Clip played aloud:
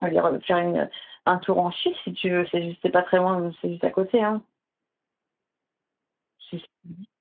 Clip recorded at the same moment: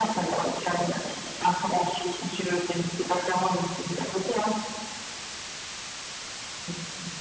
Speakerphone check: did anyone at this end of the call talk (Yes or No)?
No